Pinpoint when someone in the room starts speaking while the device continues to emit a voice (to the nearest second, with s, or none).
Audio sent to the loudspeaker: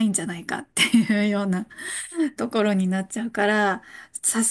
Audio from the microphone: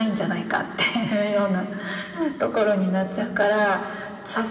none